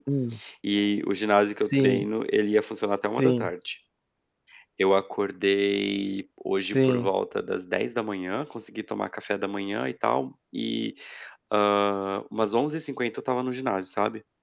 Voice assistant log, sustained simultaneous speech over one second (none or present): none